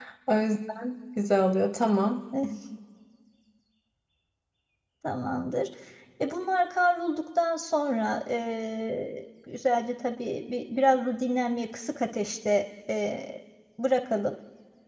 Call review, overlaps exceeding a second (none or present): none